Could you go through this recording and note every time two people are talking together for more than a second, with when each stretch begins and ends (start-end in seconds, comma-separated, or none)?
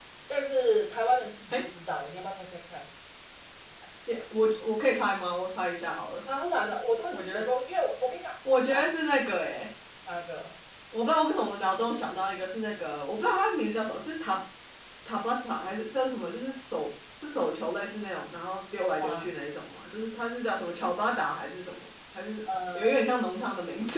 none